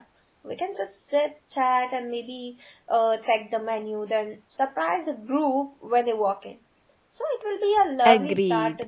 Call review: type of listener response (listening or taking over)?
taking over